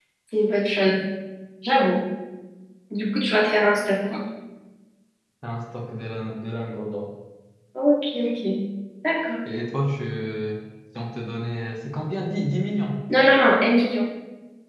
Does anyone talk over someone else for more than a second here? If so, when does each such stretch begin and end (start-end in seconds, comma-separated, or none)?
none